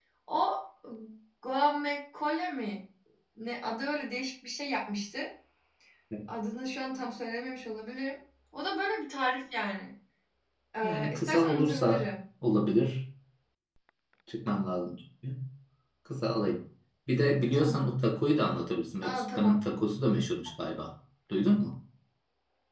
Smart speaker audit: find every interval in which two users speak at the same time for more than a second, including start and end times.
10.8-12.1

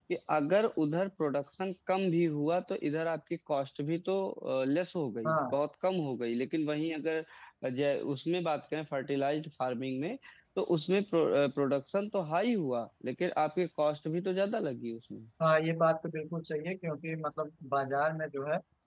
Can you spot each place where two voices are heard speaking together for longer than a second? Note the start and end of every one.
none

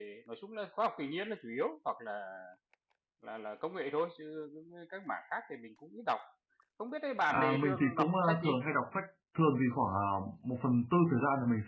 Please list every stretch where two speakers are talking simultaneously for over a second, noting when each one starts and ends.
7.3-8.5

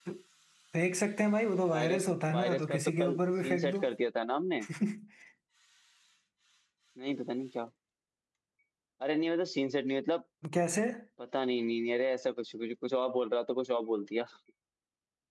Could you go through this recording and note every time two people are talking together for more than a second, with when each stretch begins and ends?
1.7-3.8

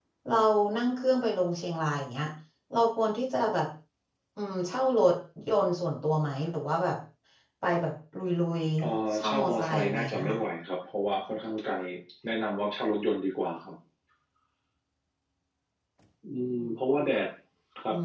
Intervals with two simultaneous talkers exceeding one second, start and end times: 8.8-10.4

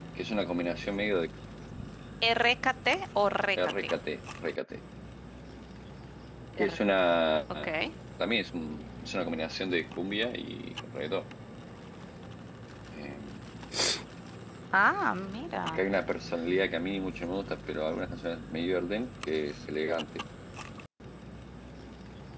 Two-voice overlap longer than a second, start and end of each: none

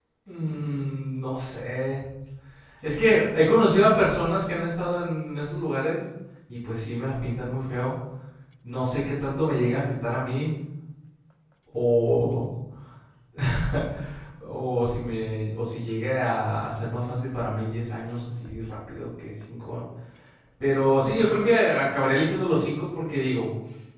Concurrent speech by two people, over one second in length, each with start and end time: none

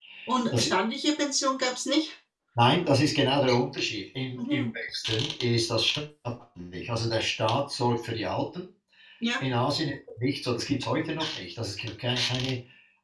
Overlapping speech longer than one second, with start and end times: none

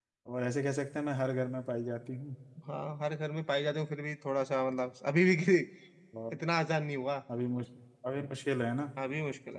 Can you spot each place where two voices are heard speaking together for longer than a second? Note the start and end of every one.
none

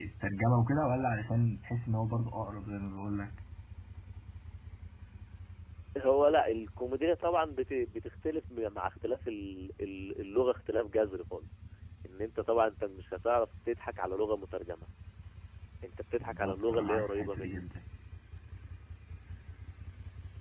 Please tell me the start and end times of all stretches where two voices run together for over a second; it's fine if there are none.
16.2-17.6

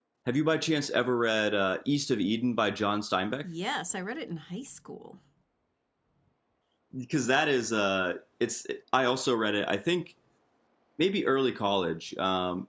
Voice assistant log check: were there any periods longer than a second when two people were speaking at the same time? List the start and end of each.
none

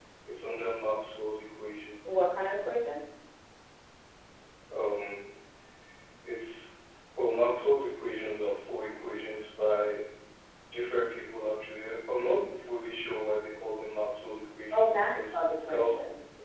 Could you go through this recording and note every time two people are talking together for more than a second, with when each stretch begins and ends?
14.7-16.0

